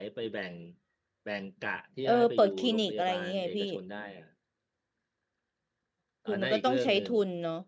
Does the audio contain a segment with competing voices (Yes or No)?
Yes